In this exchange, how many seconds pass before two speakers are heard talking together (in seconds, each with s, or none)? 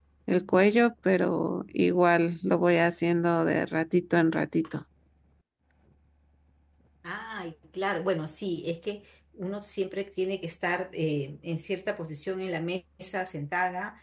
none